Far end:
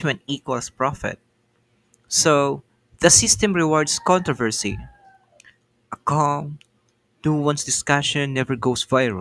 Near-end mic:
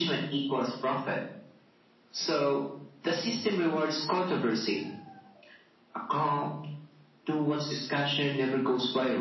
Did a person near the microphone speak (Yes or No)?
No